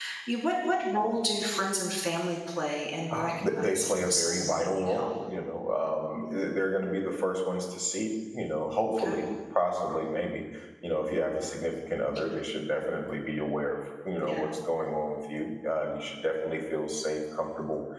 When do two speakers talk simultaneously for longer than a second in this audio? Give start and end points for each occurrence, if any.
3.1-5.1

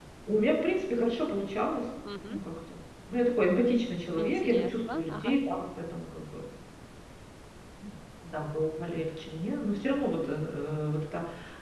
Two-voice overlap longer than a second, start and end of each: 4.2-5.4

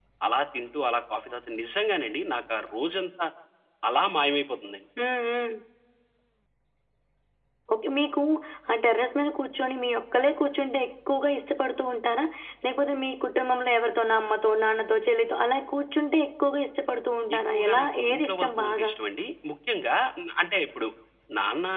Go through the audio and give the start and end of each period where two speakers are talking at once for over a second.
17.4-18.9

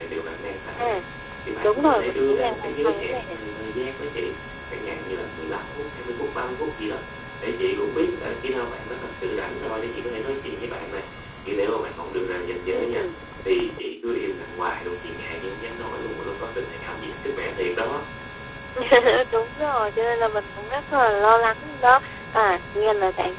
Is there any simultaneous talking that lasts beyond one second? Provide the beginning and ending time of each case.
1.6-3.4

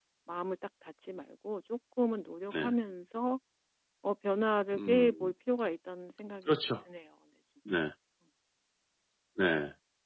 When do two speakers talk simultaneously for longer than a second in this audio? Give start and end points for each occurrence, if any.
none

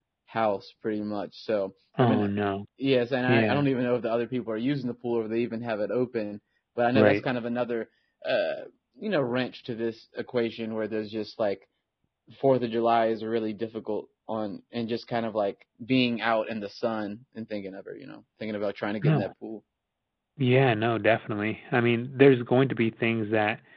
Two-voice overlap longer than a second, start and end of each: none

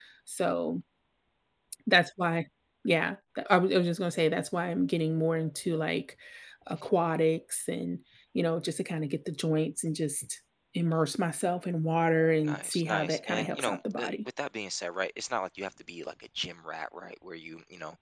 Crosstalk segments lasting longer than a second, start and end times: 12.4-14.1

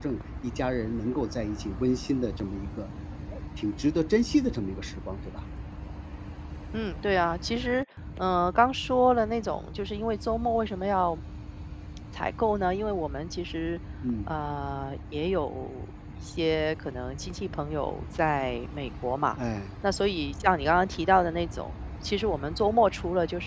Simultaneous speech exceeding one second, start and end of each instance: none

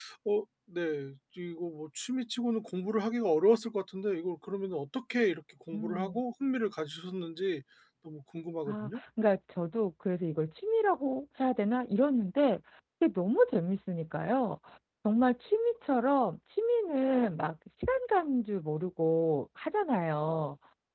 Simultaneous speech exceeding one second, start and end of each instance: none

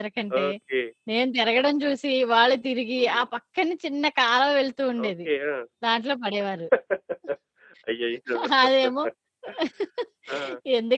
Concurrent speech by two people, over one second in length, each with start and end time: none

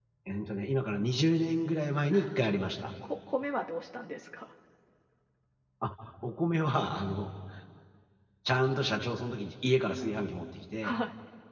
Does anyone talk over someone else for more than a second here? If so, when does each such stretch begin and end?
none

